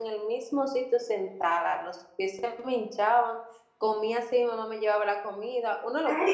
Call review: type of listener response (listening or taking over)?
taking over